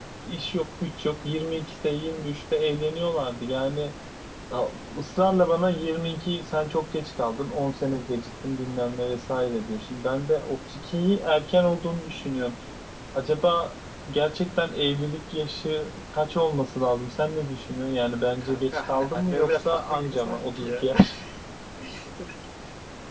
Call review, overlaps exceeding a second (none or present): present